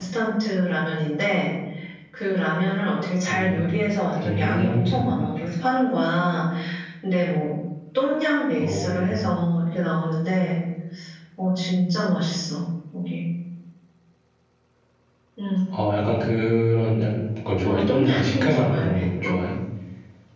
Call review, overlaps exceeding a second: present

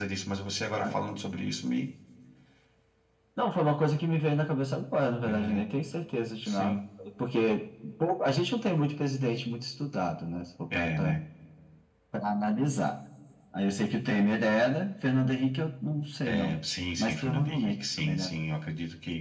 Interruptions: present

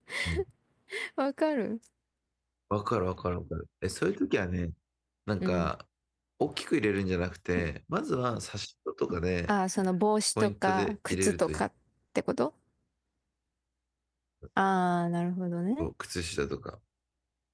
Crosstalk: present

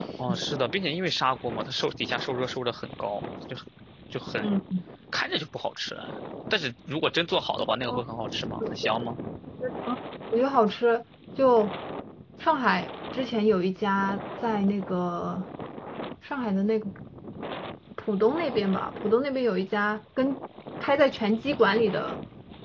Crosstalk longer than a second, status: none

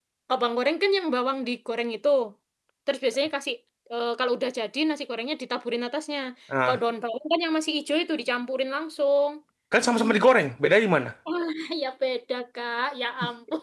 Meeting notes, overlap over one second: none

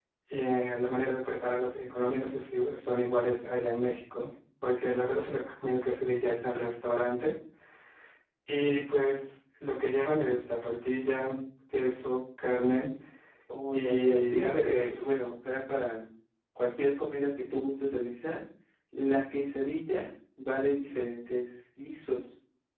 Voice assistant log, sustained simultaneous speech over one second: present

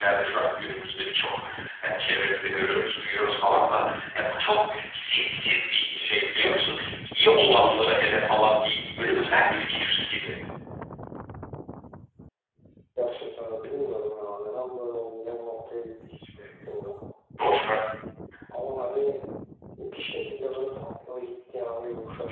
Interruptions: none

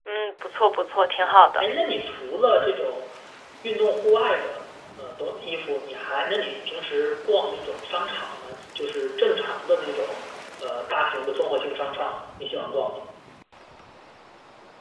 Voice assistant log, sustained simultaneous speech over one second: none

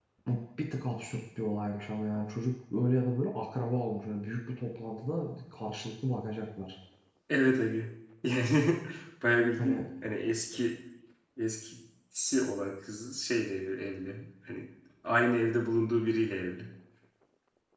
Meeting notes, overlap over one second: none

